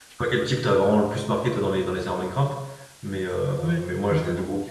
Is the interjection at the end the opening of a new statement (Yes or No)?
Yes